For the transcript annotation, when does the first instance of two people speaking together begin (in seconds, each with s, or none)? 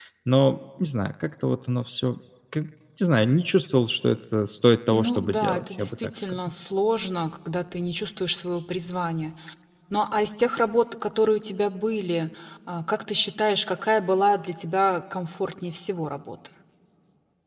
4.9 s